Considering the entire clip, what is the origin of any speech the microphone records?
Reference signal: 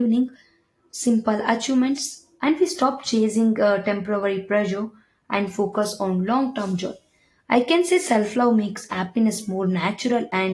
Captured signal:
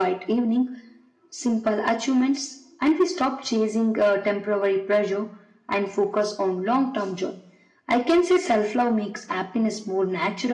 echo only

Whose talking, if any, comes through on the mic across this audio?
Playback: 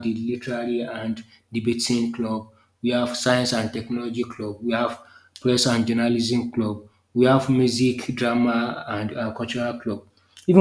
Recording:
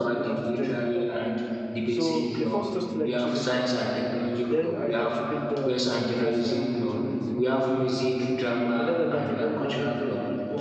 both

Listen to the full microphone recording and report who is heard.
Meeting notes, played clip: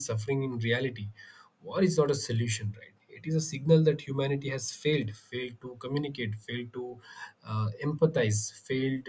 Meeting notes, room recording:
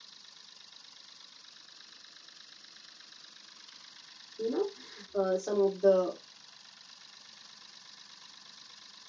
user only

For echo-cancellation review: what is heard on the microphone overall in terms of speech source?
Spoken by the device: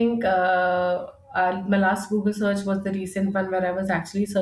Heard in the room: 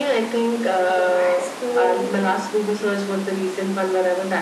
both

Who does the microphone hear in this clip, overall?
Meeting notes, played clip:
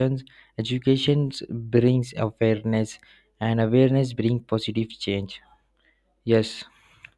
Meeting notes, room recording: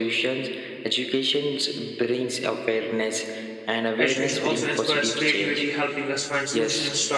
both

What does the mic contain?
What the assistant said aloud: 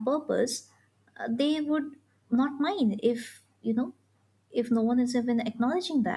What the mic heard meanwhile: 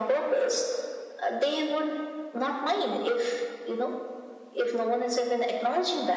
echo only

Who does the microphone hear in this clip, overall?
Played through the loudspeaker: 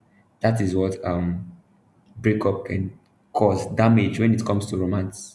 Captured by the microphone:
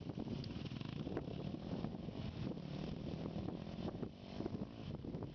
neither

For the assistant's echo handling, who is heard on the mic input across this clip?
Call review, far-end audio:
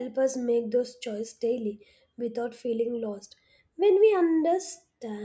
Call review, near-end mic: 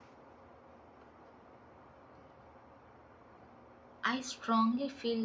user only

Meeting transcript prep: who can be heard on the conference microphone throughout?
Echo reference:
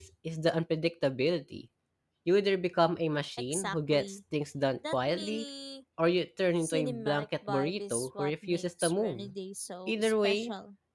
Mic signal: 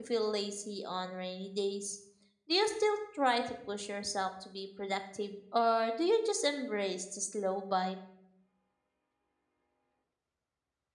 user only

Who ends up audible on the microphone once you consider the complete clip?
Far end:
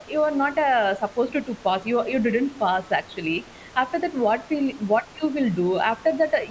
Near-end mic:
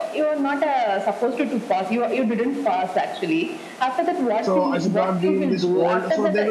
both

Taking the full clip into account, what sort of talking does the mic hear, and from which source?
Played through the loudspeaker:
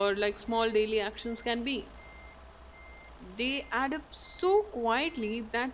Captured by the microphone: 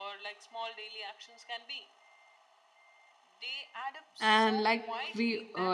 both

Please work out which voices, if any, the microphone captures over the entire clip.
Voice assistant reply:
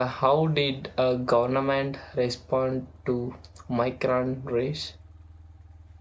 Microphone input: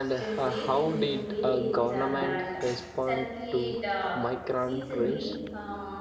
both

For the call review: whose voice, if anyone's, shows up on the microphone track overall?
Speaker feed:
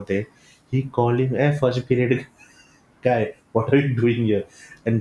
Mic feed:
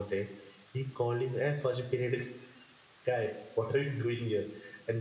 echo only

